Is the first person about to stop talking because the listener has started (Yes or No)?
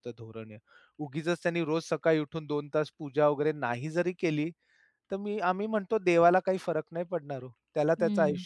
No